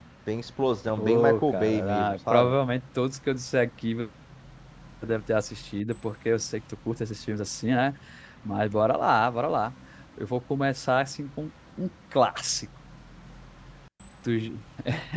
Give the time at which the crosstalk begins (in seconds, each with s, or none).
1.0 s